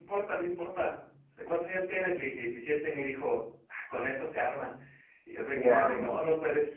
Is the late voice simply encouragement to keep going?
Yes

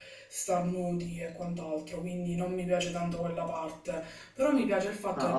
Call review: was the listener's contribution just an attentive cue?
No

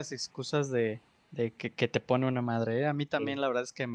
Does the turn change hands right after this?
No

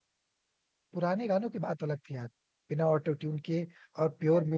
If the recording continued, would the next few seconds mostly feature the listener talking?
No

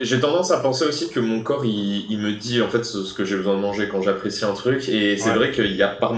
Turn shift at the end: No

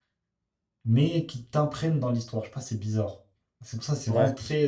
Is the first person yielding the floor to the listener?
No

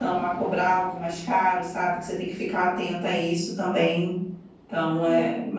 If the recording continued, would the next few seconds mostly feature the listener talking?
Yes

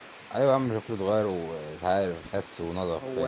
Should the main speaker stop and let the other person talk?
Yes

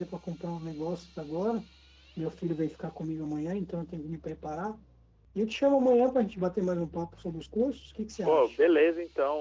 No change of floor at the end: No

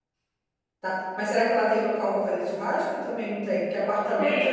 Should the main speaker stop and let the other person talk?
Yes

